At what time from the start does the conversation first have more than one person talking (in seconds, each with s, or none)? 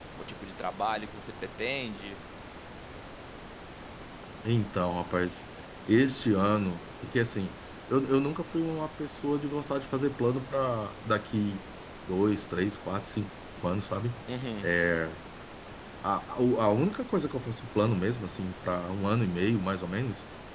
none